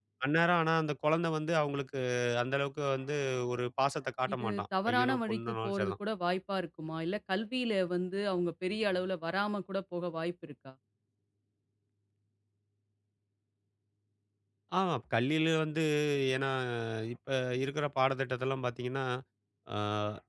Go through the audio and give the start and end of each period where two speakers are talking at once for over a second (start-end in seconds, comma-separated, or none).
4.3-5.9